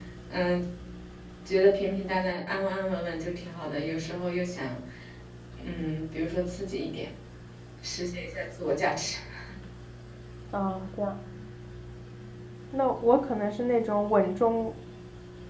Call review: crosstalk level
none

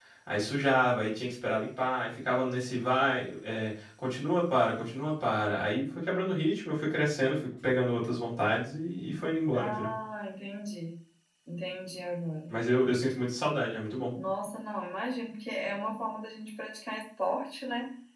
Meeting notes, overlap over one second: none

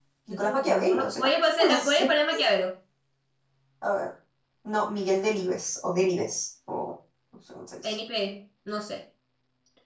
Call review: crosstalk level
present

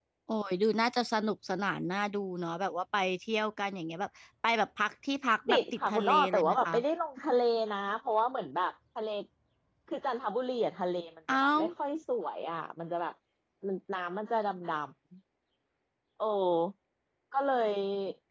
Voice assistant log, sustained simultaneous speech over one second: present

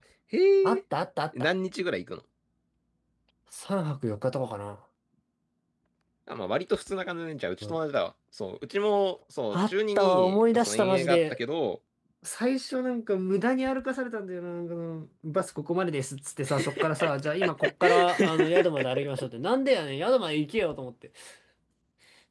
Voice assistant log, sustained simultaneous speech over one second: present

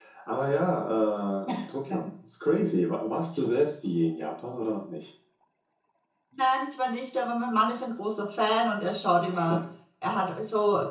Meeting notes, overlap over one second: none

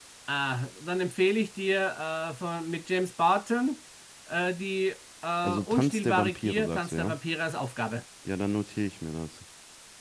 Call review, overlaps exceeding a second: present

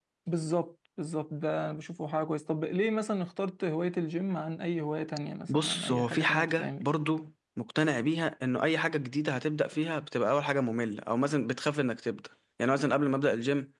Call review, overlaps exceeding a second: present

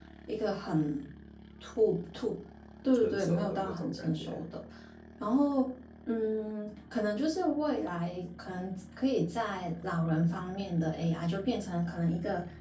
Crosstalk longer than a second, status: present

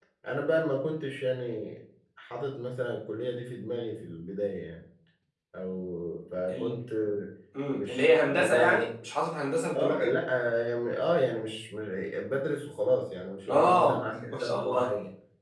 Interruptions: present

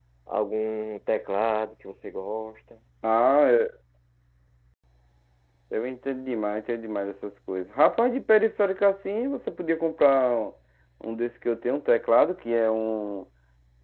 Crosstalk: none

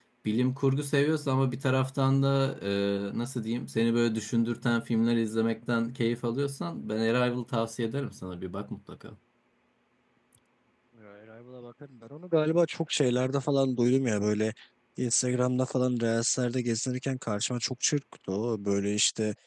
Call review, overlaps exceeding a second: none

